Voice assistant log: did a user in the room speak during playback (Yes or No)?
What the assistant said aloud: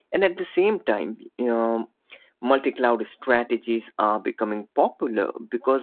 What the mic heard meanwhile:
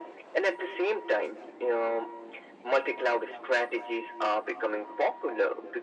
No